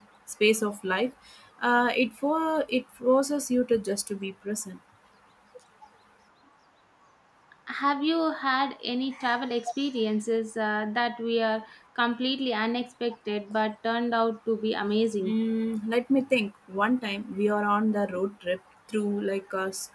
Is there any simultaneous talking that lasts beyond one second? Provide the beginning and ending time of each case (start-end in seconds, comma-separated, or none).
none